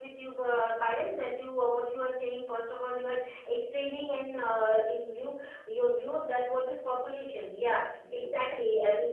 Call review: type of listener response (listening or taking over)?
listening